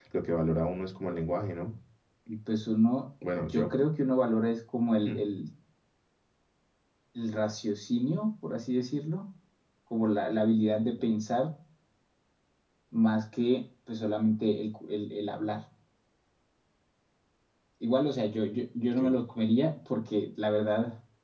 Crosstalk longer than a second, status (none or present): none